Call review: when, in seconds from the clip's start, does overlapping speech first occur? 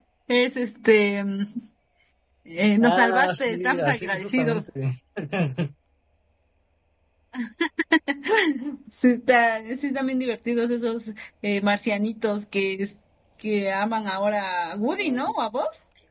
3 s

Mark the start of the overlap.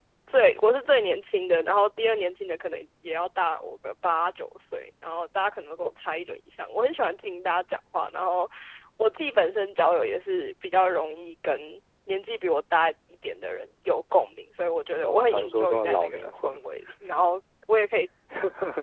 15 s

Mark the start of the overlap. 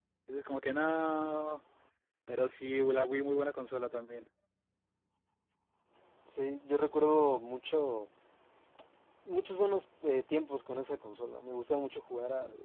none

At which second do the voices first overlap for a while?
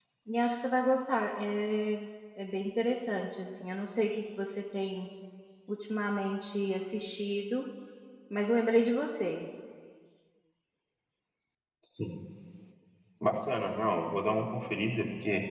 none

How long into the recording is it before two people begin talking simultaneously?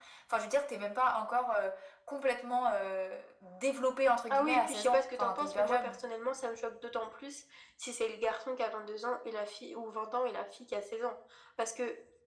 4 s

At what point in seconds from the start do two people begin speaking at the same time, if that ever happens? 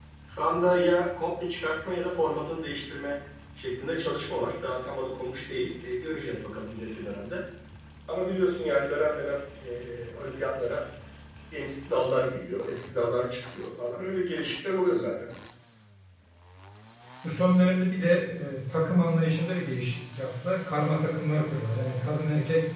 none

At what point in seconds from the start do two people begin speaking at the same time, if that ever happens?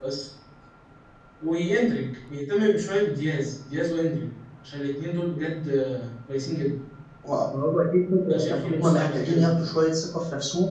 8 s

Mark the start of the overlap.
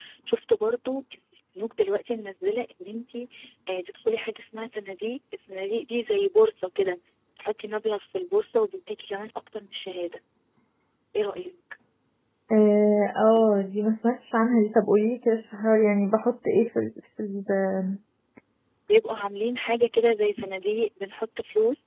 none

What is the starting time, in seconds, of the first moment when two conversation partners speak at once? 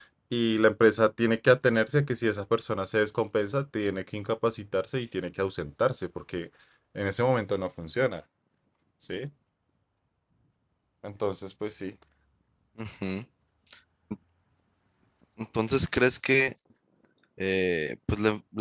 none

